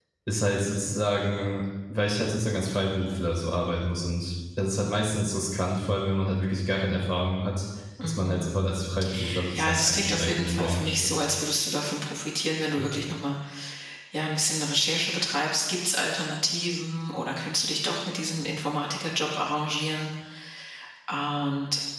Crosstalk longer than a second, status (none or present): present